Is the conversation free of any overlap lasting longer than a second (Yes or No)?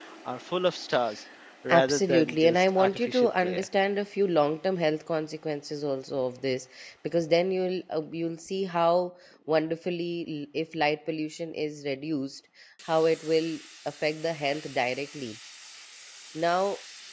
No